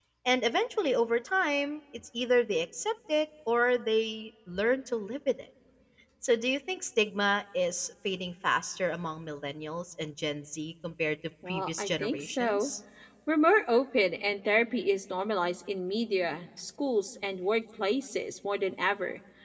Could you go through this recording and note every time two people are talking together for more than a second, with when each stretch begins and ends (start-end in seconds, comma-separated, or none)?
11.5-12.7